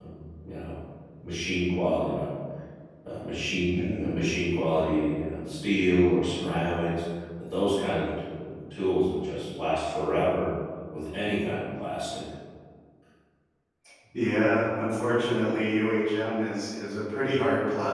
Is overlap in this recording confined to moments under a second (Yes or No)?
Yes